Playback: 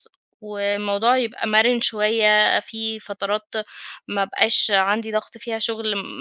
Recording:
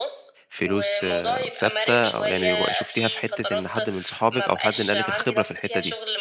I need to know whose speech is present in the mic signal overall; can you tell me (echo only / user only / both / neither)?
both